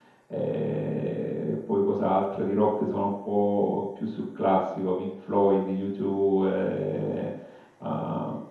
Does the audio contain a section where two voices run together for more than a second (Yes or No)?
No